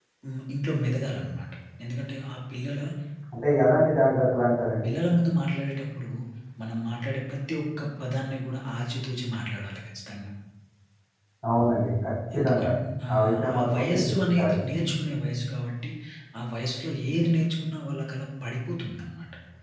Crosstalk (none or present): present